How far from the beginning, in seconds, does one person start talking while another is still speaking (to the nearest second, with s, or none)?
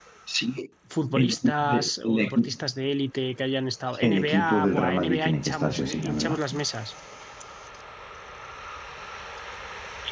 1 s